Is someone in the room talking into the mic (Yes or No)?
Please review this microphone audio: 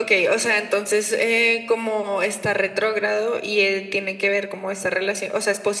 No